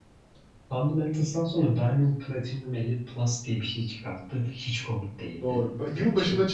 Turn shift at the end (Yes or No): Yes